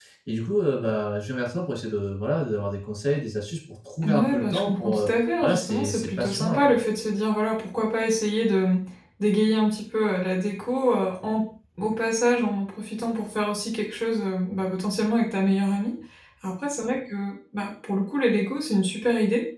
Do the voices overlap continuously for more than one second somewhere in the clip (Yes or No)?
Yes